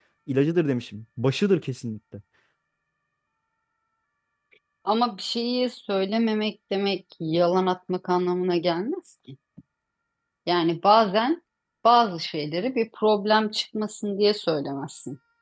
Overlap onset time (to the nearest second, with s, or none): none